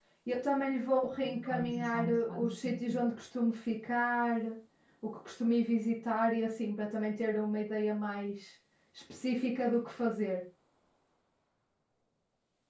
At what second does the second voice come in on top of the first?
1.2 s

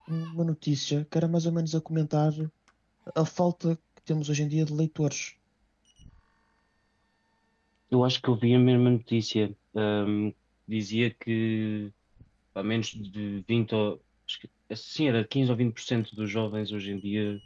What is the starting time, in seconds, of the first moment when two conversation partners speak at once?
none

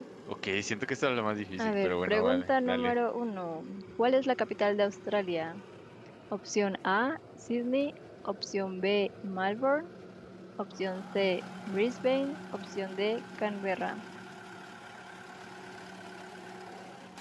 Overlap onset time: 1.6 s

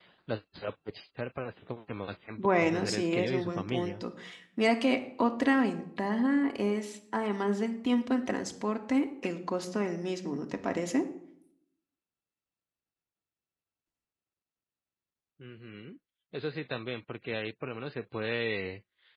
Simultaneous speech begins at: 2.4 s

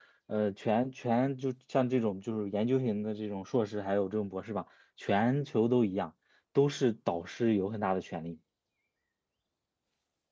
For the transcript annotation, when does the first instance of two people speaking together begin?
none

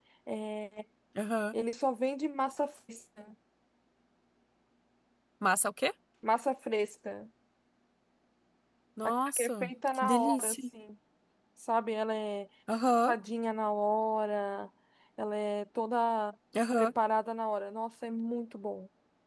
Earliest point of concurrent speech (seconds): 9.0 s

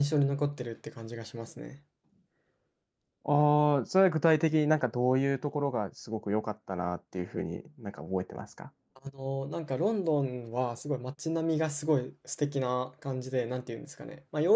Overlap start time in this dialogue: none

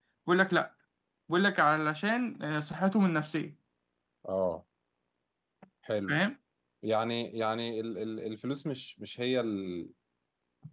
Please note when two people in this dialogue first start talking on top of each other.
none

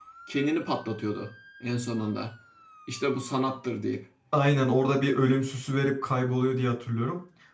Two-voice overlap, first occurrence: none

